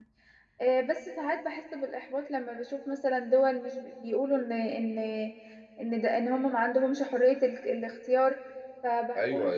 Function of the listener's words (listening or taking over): taking over